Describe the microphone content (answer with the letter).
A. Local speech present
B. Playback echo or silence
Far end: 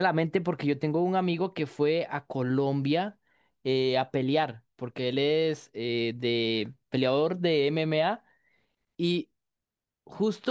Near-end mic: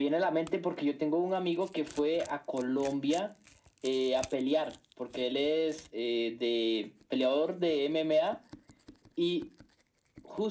B